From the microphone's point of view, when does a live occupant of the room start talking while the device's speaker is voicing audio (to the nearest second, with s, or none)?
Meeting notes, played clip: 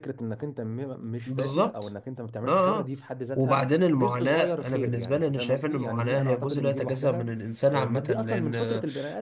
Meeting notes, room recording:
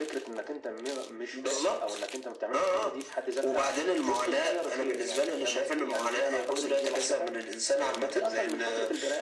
none